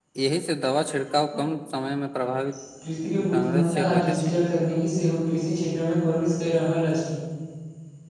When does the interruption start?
3.0 s

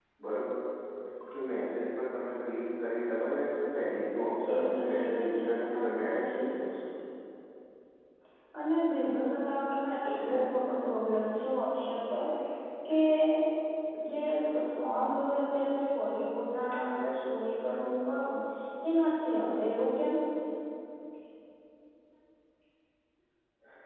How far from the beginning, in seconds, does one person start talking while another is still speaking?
4.5 s

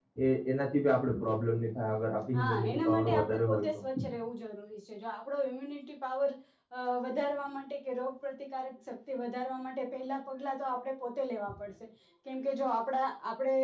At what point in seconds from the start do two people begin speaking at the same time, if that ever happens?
2.3 s

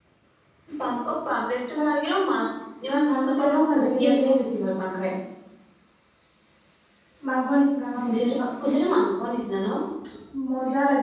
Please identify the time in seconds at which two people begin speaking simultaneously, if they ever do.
2.9 s

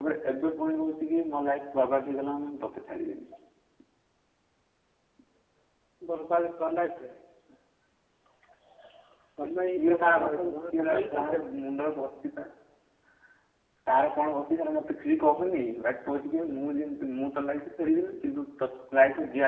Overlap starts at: 9.8 s

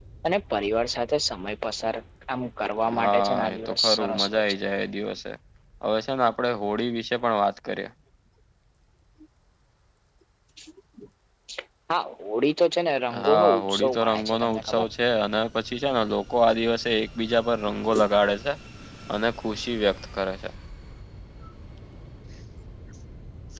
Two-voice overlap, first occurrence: 2.9 s

